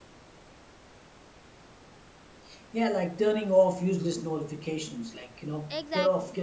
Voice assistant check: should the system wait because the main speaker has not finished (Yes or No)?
Yes